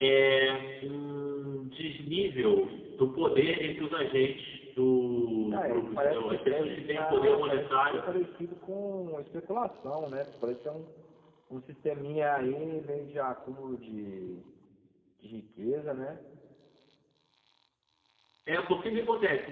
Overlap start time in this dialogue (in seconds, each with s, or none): 5.5 s